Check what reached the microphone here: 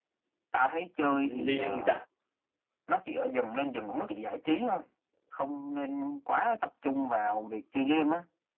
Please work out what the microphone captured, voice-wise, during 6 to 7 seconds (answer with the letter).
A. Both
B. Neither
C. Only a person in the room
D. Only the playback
D